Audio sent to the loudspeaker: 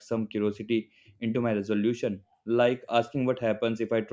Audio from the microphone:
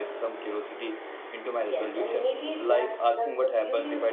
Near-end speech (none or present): present